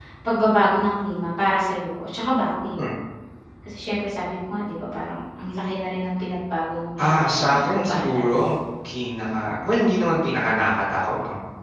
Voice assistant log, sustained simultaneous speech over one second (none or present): present